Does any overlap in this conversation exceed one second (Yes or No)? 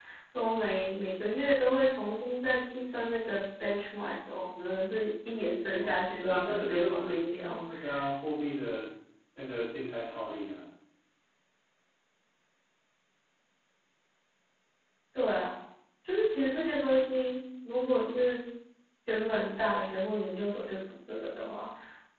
Yes